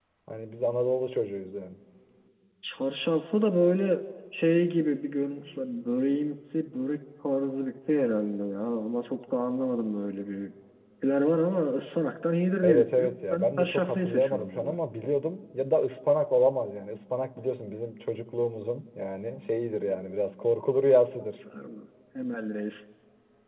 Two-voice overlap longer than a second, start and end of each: 12.6-14.7

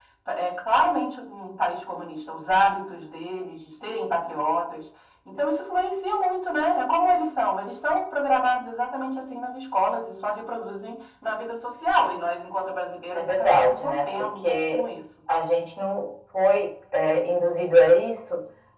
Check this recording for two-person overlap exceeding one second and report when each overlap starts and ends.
13.1-14.8

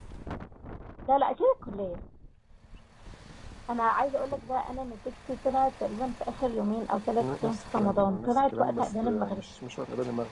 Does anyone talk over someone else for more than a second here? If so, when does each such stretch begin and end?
7.2-9.4

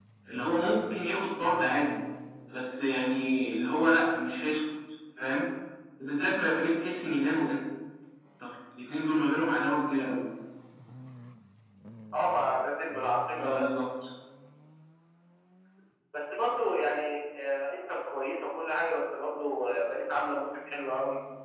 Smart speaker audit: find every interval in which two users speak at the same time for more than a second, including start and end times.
none

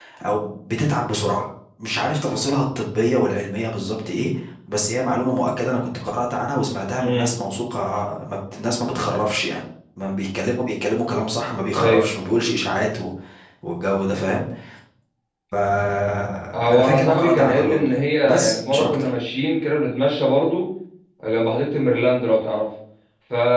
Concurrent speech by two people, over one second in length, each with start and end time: 16.5-19.1

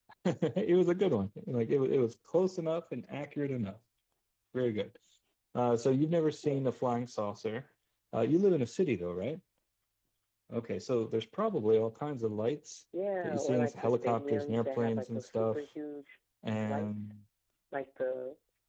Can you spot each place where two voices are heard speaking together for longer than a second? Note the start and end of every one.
13.2-15.6

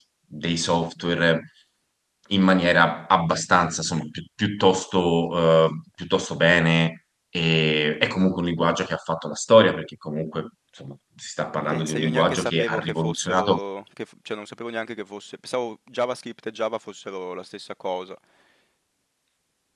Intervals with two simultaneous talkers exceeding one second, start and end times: 11.7-13.6

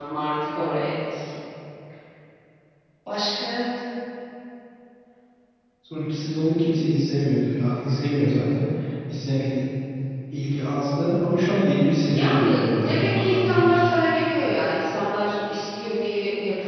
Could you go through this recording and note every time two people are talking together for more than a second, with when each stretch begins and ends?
12.0-13.7

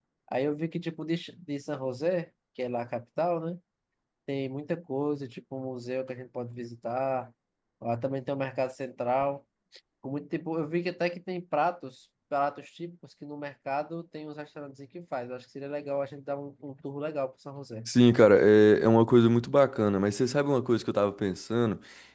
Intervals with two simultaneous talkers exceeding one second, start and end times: none

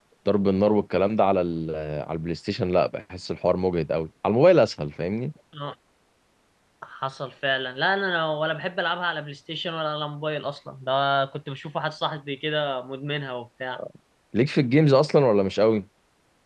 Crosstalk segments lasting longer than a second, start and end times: none

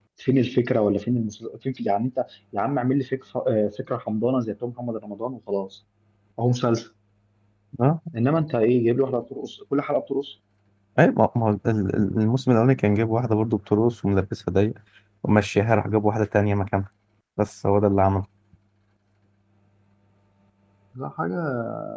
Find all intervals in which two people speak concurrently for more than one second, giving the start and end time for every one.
none

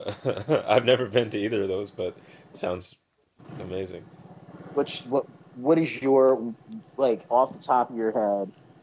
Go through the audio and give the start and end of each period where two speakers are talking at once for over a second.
none

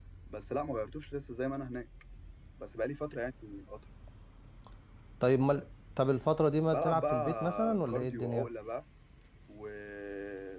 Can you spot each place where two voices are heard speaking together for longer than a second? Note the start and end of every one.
6.7-8.5

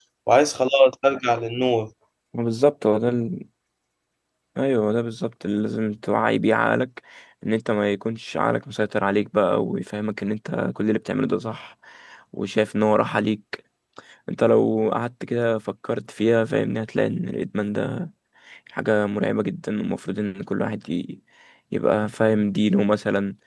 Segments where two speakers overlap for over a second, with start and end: none

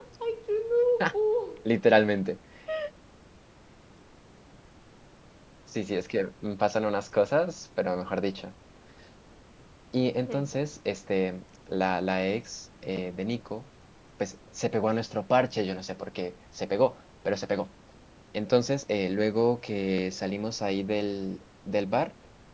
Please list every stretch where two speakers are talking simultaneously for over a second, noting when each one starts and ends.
none

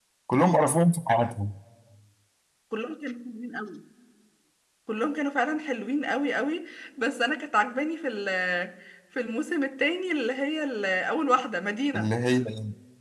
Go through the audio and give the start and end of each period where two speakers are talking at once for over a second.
none

